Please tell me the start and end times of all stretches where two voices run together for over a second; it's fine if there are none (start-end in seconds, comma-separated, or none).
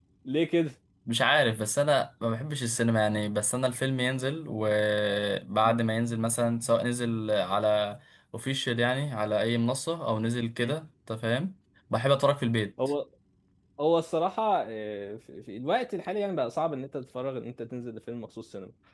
none